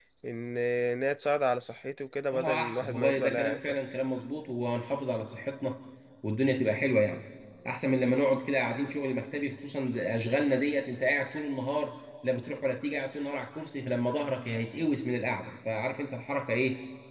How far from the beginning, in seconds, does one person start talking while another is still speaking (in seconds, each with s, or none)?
2.3 s